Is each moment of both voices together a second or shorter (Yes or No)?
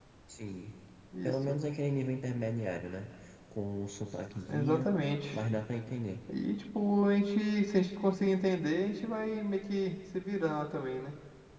Yes